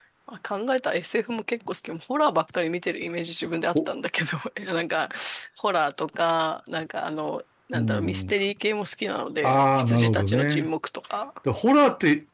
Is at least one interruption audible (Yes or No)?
Yes